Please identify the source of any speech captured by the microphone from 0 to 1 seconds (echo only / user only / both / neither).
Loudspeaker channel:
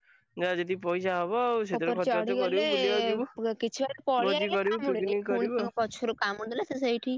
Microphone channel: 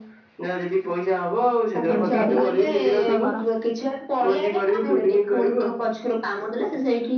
echo only